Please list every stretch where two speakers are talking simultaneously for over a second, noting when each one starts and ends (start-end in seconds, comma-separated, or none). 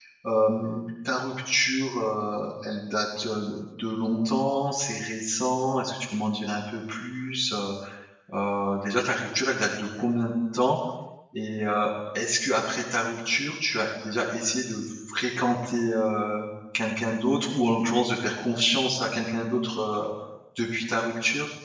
none